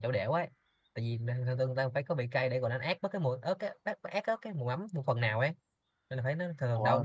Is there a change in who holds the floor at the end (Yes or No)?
No